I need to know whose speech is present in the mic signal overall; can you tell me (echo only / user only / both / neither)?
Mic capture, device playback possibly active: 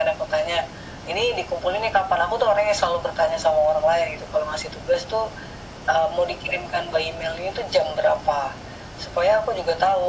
echo only